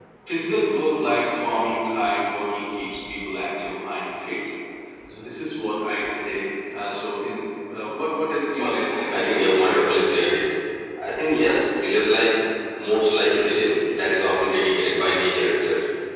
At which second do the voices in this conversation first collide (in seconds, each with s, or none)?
8.6 s